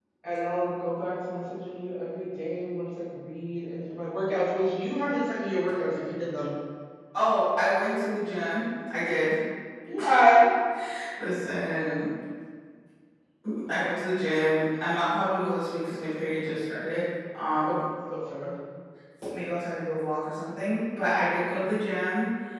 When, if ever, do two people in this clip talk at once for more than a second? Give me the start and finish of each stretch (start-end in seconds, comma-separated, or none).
none